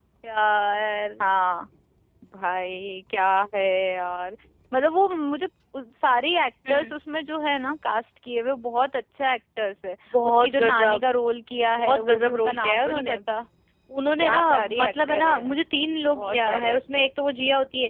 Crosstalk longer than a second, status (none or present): present